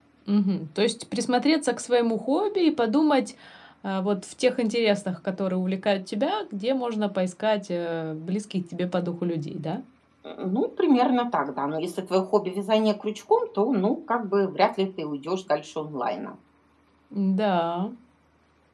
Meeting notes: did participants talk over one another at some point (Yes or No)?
No